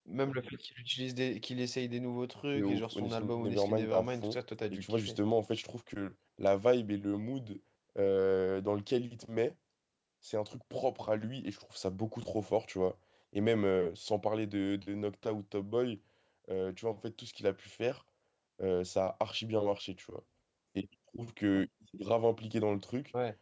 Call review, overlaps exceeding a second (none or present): present